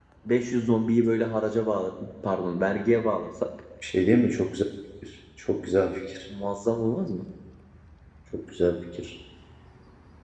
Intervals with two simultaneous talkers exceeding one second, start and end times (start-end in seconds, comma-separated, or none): none